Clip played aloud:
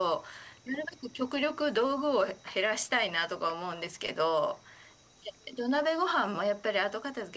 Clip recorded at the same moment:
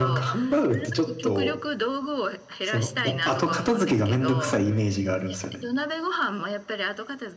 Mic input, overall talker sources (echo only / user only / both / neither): both